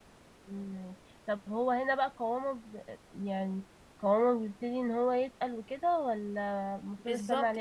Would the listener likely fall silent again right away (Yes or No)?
No